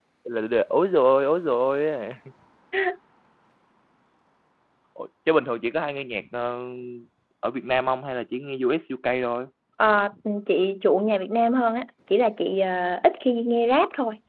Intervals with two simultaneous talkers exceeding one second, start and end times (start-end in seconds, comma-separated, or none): none